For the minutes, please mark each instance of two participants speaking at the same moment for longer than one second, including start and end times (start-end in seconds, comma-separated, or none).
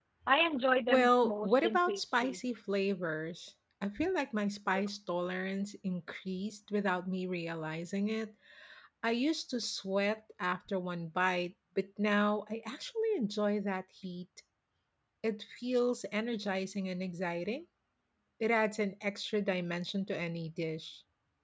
0.9-2.4